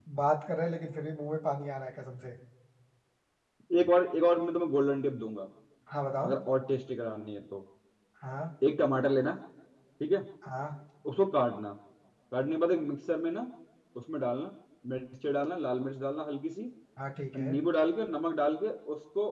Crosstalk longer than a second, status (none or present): none